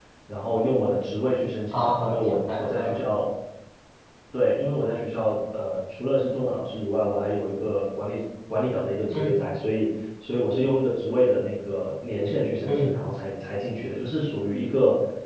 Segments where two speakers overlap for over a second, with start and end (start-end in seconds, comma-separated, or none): 1.7-3.1